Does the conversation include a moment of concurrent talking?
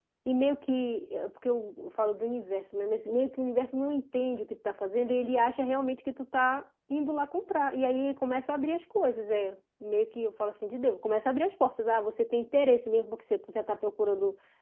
No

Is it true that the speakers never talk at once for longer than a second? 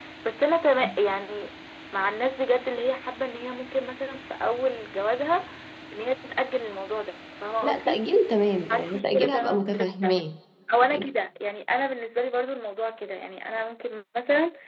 No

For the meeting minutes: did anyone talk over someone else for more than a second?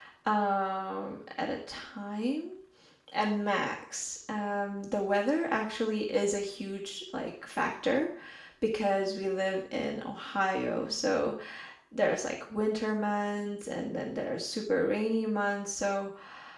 No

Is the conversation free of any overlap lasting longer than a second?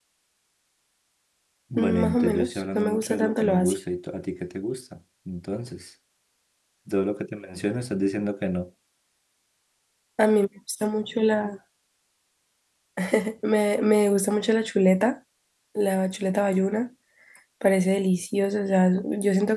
No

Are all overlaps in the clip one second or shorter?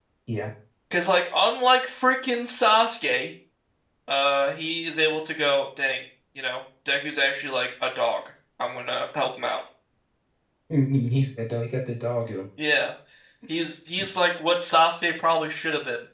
Yes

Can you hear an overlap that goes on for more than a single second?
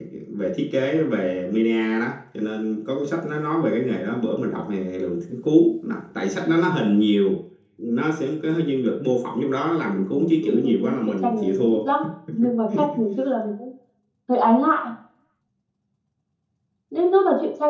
Yes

